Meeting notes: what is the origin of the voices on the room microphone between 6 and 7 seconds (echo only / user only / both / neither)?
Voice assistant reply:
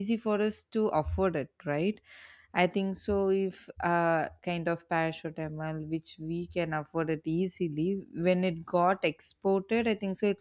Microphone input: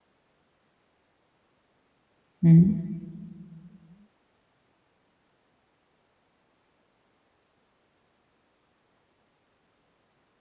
neither